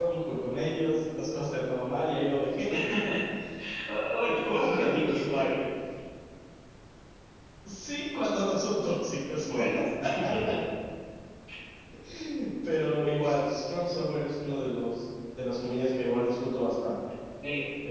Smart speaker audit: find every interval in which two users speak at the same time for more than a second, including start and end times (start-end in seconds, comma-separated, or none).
4.2-5.6